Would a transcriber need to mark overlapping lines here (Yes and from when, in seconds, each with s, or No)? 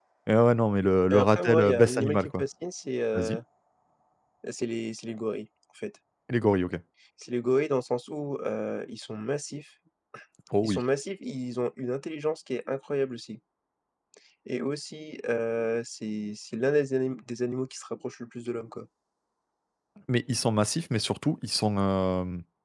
Yes, from 1.1 s